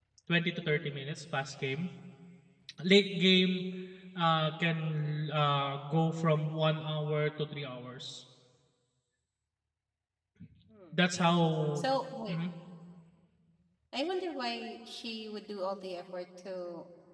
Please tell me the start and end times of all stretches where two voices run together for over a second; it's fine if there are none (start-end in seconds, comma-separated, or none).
none